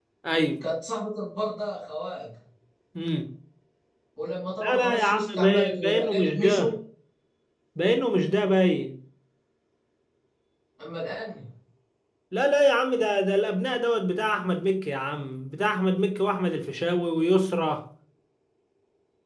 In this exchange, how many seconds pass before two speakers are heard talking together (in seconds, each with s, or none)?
4.6 s